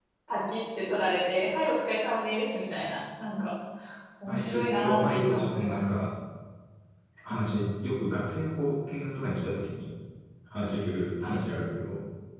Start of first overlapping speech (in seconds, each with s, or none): 4.2 s